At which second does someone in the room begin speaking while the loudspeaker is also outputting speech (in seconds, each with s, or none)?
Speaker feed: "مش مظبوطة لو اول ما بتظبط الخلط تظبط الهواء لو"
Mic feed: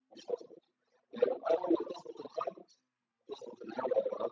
none